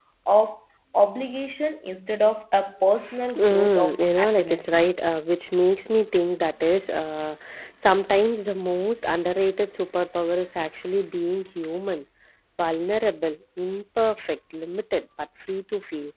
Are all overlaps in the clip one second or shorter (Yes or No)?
No